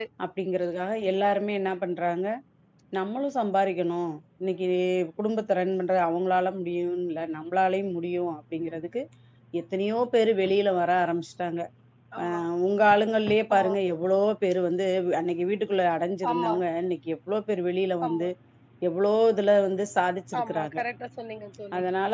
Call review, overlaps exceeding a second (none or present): none